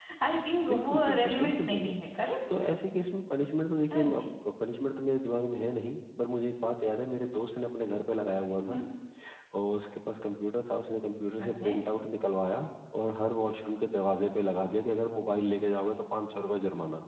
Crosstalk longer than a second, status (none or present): present